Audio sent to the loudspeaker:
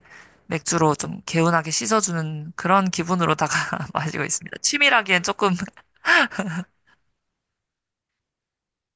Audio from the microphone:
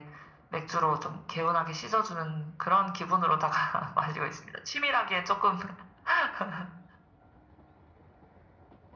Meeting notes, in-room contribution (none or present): none